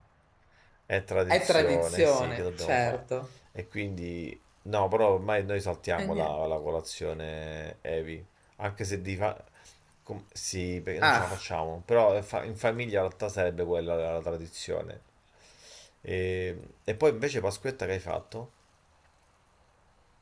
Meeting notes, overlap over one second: present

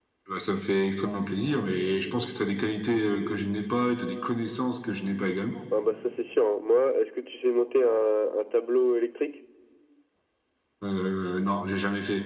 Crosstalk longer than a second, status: none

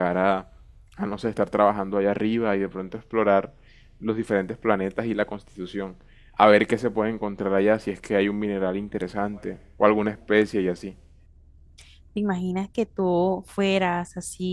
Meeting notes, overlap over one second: none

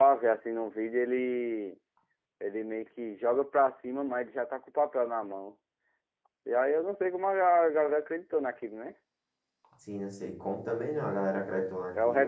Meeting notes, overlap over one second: none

